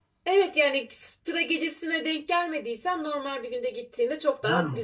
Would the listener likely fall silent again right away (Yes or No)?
Yes